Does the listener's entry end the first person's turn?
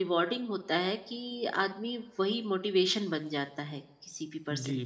Yes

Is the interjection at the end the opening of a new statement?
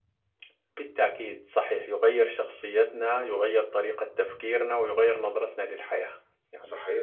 Yes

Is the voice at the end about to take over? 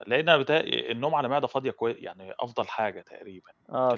No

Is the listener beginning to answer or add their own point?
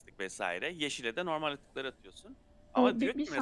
Yes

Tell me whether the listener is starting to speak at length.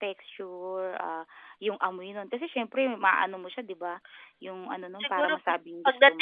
Yes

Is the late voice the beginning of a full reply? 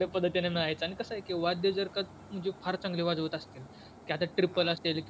No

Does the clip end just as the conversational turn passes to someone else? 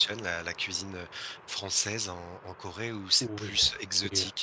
Yes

